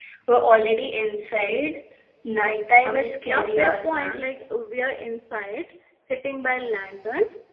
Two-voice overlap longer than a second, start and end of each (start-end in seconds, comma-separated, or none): 2.9-4.2